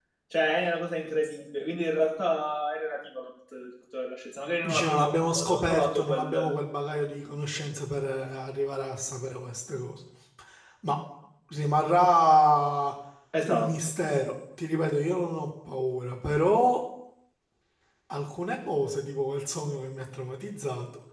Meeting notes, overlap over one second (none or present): present